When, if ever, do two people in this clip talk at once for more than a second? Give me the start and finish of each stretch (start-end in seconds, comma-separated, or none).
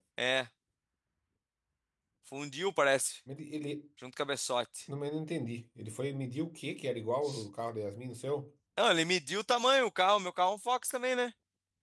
none